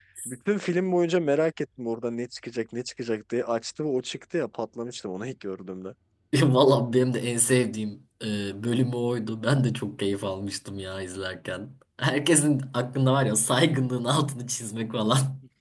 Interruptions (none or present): none